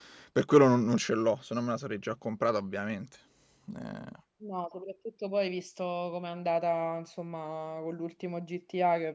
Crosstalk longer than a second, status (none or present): none